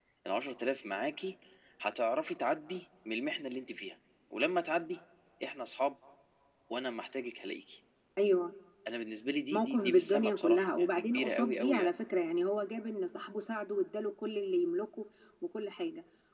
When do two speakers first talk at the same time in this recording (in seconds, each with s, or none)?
9.5 s